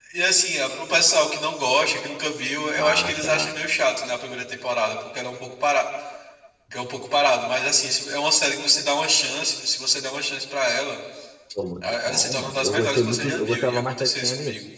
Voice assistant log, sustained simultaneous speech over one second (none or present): present